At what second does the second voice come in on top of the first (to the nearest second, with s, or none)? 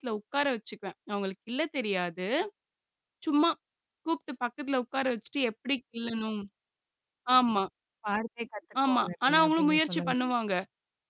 9 s